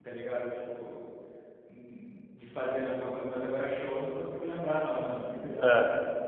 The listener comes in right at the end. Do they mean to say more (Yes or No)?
Yes